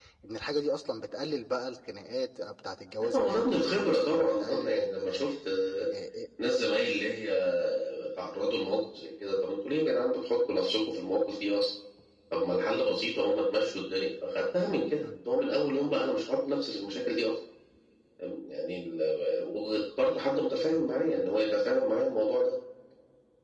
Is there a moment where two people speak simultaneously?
Yes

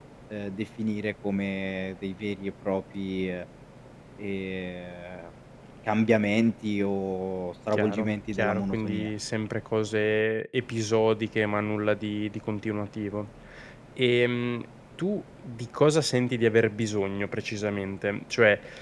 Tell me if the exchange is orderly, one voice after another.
No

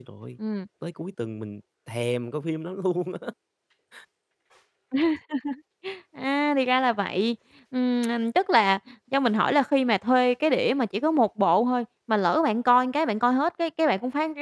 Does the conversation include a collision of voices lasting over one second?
No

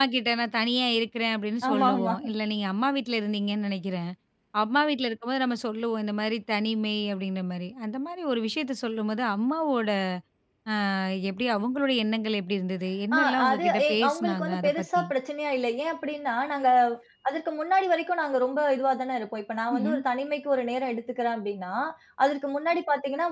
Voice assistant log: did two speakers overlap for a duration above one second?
Yes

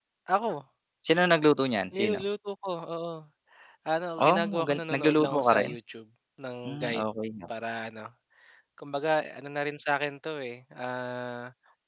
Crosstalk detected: Yes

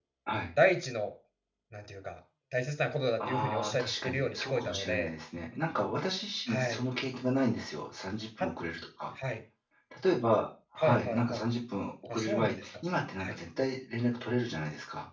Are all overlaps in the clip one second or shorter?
No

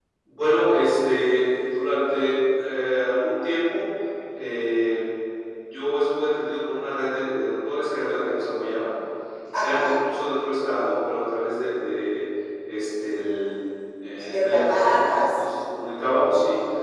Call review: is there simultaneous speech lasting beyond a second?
Yes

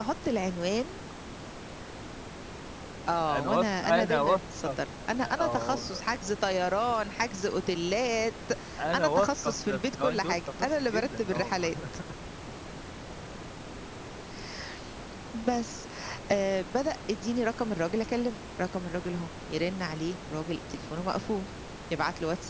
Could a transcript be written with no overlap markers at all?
No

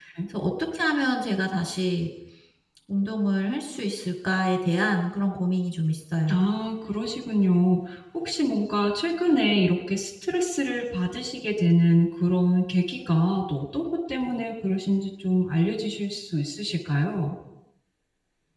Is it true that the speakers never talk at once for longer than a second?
Yes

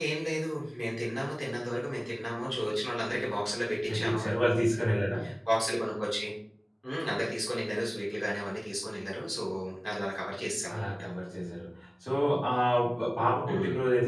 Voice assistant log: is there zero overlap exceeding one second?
Yes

